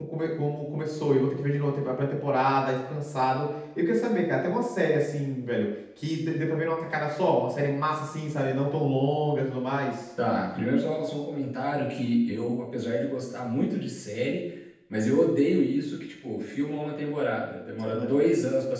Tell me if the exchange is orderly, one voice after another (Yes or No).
Yes